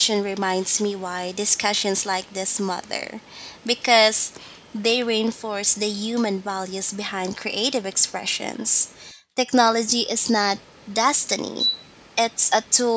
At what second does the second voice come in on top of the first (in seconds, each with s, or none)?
none